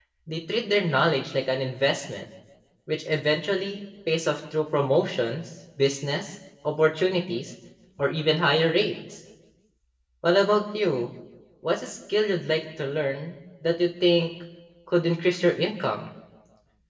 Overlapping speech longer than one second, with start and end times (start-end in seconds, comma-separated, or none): none